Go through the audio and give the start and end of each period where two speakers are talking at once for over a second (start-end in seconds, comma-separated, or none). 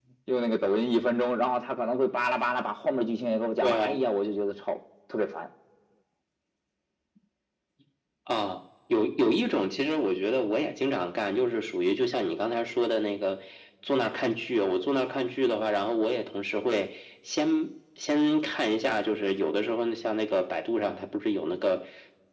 none